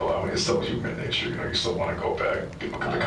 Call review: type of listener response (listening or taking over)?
taking over